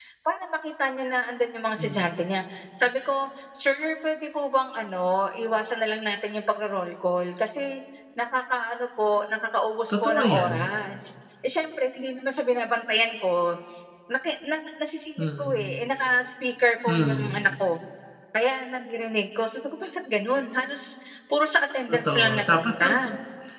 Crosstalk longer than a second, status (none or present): present